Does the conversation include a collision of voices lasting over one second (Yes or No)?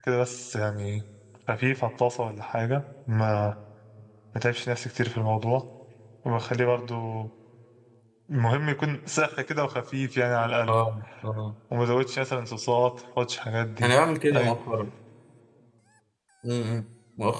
No